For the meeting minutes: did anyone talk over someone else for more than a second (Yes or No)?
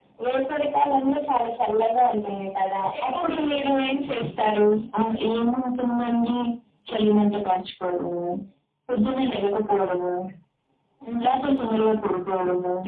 No